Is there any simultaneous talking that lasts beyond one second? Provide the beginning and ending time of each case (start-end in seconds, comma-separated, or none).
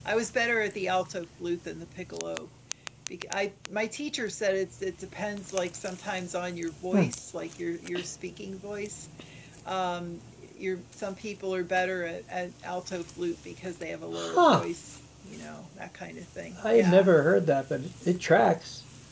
none